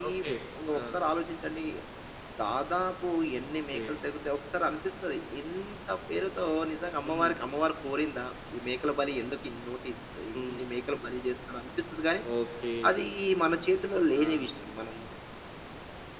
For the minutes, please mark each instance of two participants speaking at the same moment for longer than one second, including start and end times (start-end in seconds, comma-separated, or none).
none